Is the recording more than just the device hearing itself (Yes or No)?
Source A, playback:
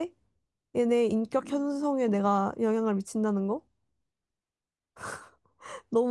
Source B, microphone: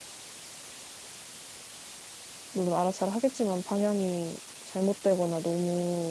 Yes